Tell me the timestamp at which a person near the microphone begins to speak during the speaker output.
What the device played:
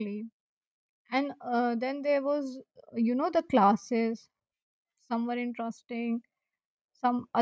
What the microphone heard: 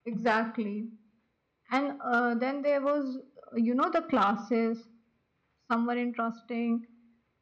none

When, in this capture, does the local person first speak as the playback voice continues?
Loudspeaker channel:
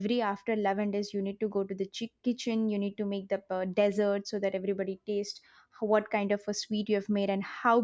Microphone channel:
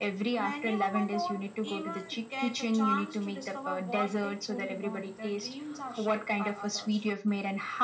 0.4 s

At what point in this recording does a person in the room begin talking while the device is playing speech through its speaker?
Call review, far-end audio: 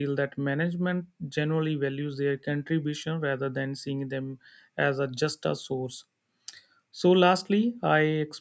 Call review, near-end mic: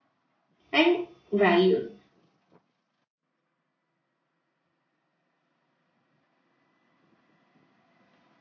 0.7 s

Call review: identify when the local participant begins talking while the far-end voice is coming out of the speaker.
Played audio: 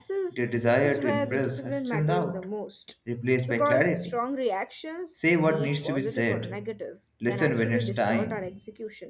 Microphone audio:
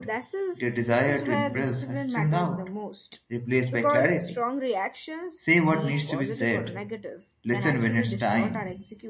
none

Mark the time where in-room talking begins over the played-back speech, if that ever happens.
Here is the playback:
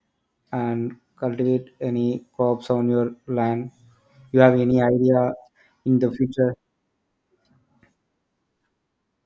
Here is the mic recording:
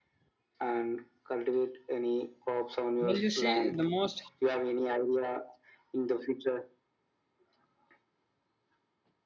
3.0 s

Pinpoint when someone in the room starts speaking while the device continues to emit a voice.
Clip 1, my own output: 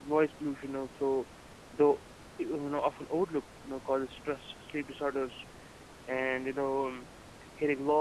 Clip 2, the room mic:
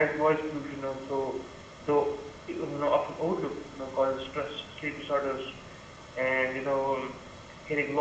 none

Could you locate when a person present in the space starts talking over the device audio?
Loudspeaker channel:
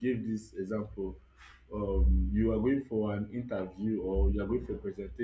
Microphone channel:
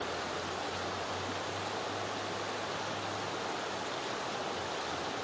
none

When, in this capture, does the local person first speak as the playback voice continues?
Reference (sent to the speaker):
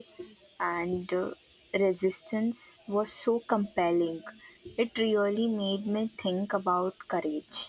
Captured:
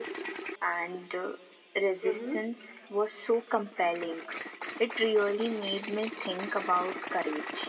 2.0 s

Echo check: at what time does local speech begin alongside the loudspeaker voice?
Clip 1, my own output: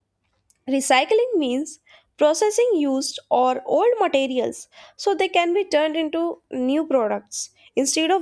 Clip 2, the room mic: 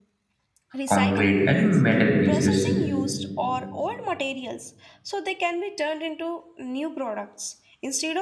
0.8 s

